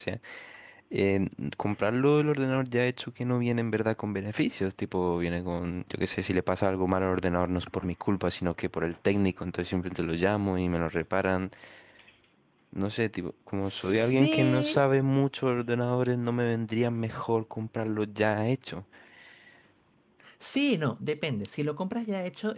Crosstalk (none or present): present